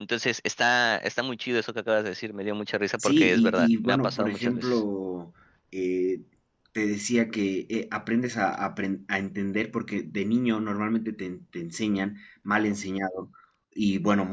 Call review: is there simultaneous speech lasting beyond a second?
Yes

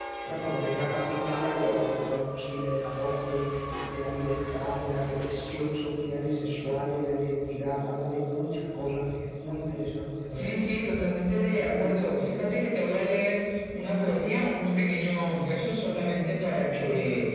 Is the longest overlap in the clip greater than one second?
No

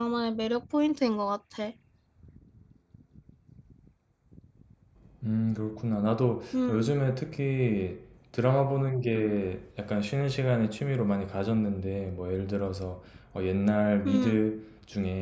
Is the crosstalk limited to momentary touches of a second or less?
Yes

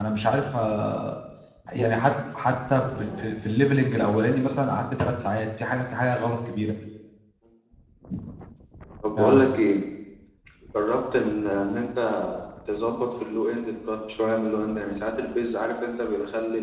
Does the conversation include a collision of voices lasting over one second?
No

